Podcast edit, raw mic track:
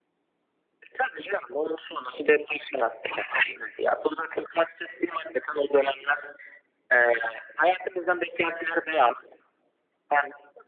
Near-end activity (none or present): none